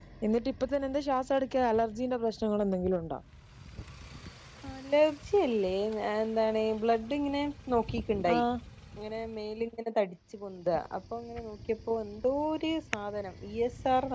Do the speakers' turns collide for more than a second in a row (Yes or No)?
No